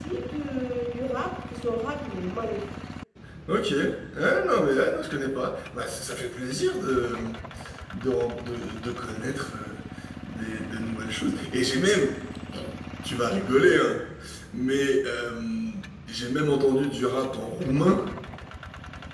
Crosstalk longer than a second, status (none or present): none